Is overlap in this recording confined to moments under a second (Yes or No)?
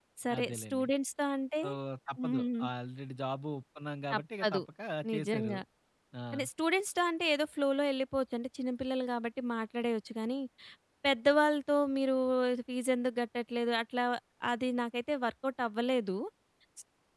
Yes